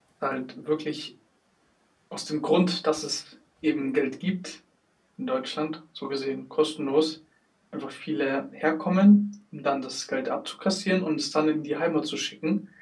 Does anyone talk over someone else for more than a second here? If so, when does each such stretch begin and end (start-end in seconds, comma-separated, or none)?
none